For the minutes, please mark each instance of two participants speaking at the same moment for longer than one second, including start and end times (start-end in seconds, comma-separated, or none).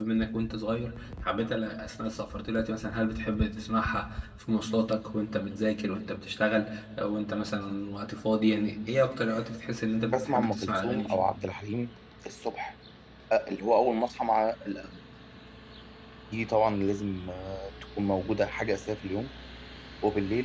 10.0-11.2